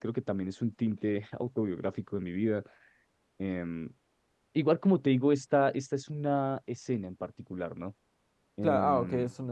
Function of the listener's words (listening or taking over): taking over